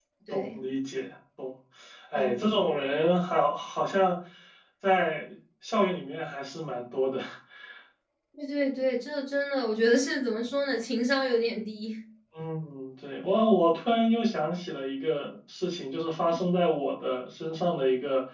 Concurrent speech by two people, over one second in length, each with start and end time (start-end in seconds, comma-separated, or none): none